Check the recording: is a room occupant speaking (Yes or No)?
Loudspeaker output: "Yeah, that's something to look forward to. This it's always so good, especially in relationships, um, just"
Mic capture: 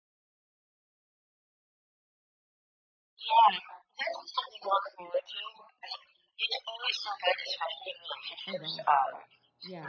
Yes